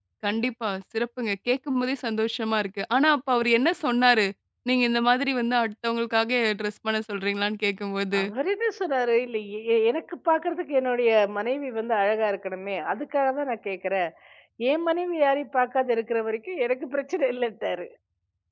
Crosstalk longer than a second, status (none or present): none